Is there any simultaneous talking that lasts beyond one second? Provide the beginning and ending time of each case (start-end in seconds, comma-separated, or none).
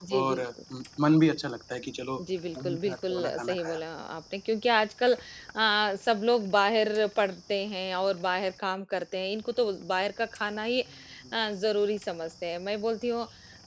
2.6-3.8